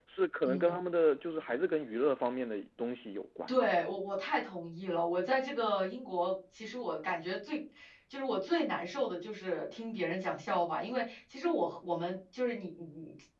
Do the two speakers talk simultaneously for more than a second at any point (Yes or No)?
No